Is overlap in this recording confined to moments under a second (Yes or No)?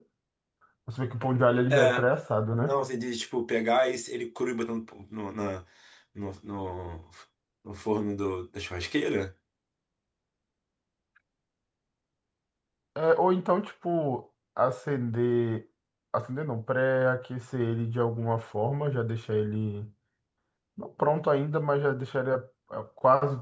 Yes